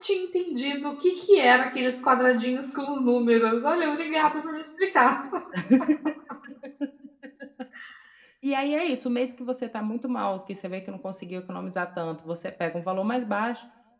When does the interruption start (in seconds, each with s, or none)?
none